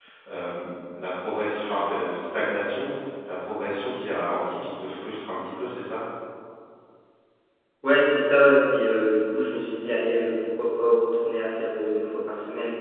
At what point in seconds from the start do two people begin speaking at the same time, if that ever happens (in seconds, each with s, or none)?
none